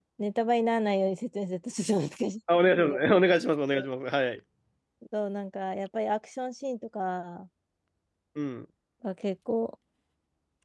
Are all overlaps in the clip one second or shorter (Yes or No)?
Yes